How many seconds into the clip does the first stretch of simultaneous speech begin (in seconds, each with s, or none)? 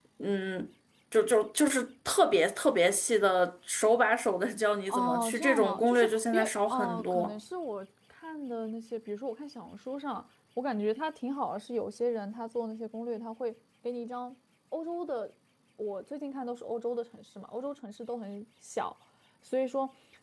4.9 s